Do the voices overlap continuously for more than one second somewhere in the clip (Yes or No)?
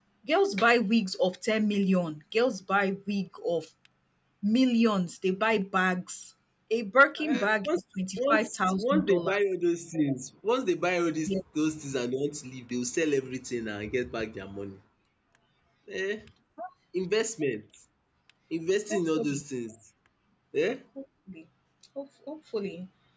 Yes